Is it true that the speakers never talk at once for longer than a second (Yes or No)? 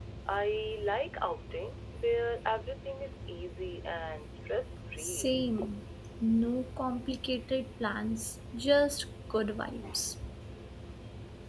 Yes